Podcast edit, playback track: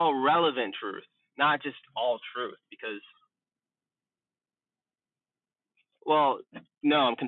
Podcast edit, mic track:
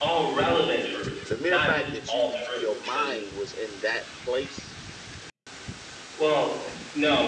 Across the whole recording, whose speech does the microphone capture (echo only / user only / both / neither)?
both